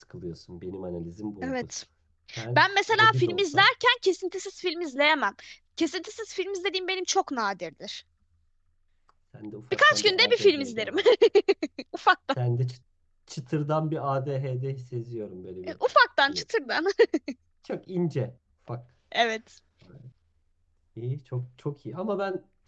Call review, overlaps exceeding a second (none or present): present